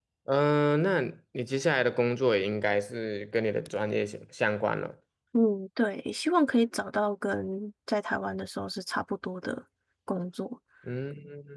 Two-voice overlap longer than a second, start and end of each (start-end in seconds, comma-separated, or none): none